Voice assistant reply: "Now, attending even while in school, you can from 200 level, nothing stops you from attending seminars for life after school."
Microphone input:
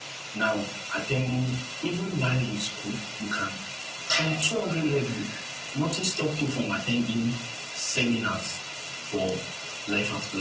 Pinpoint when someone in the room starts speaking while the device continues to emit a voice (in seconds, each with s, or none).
none